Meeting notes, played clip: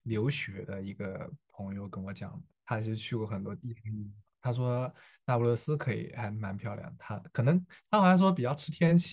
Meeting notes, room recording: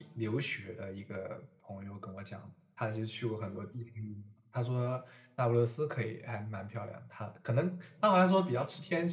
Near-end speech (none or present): none